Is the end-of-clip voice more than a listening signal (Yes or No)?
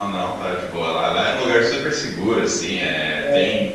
No